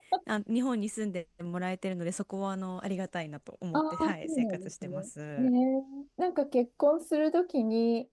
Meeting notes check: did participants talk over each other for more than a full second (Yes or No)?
Yes